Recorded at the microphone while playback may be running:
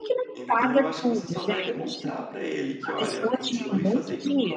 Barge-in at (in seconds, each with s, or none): 0.3 s